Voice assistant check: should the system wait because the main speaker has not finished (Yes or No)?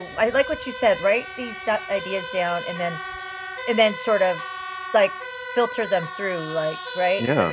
No